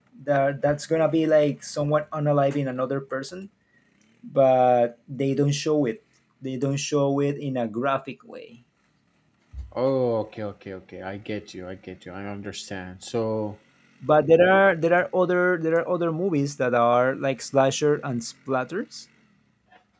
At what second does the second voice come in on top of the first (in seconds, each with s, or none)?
none